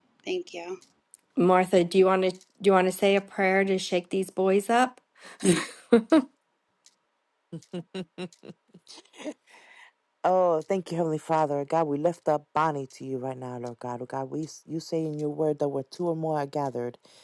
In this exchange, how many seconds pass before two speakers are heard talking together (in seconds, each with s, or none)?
none